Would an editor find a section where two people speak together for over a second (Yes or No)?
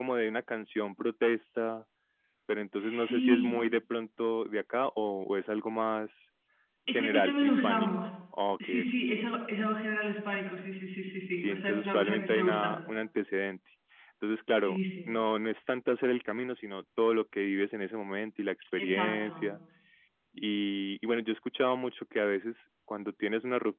Yes